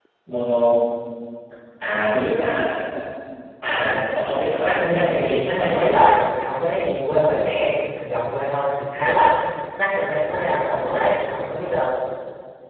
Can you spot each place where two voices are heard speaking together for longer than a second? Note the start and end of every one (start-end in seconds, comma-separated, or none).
4.6-5.8